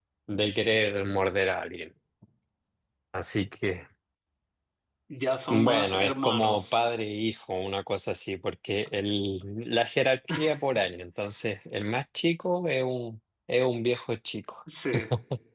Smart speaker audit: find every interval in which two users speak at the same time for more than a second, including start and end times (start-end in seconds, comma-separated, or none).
5.5-6.8